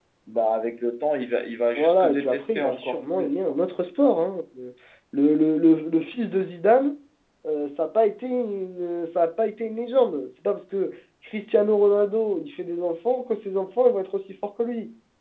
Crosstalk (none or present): present